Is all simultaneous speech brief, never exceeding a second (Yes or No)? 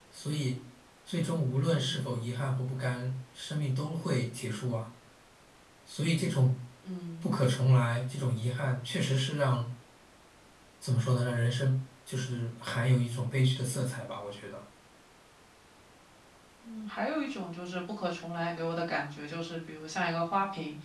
Yes